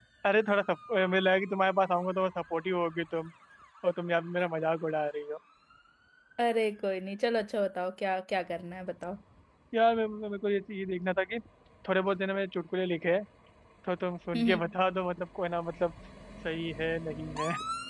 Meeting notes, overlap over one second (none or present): none